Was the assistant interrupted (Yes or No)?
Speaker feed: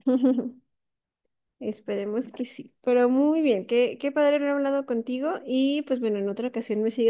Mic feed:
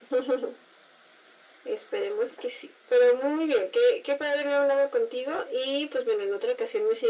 No